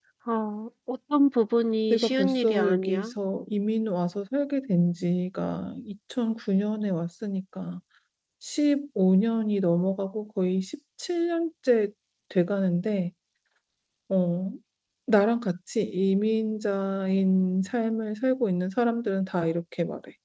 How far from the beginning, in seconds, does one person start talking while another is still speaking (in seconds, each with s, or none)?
1.9 s